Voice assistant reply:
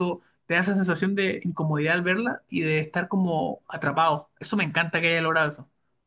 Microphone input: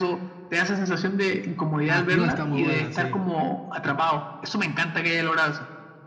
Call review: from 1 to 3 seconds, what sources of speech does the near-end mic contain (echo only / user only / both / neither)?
both